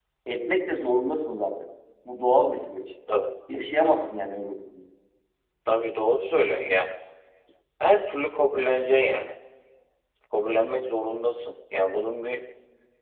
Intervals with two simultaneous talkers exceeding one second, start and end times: none

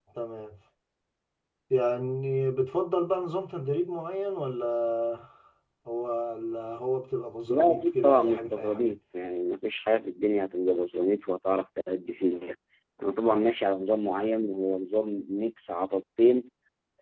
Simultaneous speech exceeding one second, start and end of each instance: 7.5-8.9

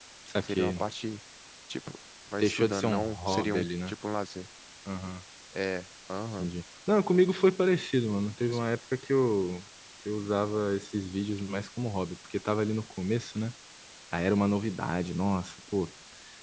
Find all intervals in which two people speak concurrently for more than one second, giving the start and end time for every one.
2.4-3.9

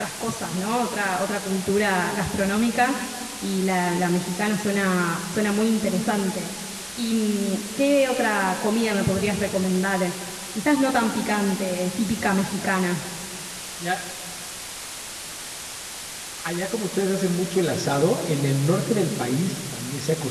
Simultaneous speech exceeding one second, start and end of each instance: none

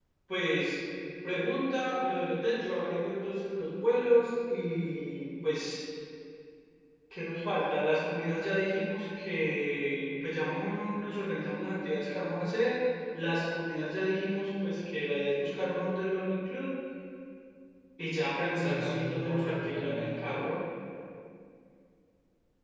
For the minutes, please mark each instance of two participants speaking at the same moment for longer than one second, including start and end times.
18.6-20.3

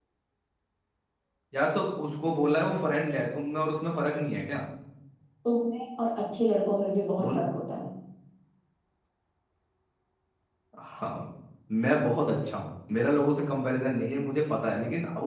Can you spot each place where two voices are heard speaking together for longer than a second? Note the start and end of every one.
none

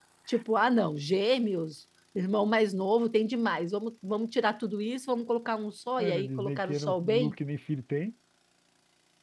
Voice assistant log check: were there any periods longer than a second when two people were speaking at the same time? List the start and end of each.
6.0-7.3

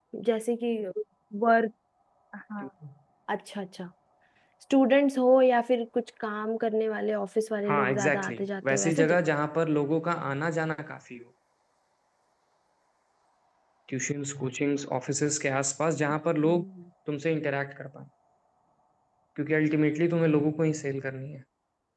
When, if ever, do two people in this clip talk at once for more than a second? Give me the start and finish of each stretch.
7.7-9.2

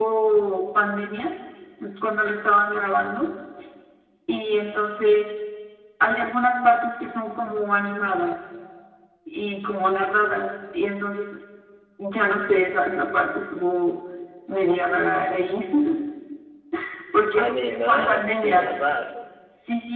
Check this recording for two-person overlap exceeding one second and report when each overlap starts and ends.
17.4-18.6

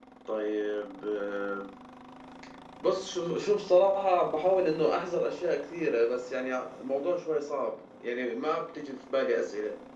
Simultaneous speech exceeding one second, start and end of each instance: none

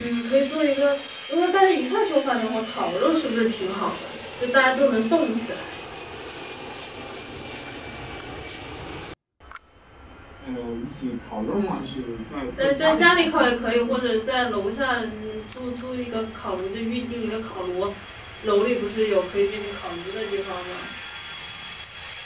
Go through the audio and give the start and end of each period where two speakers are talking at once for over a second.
12.6-14.0

